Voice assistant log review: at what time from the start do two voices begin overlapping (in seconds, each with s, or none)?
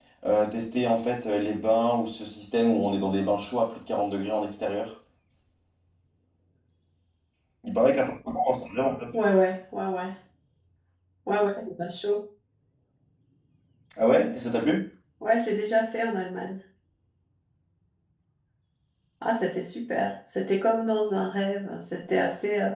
none